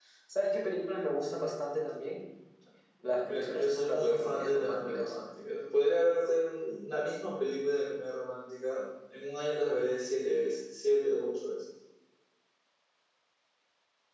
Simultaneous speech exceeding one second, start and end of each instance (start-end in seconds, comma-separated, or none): 3.0-5.1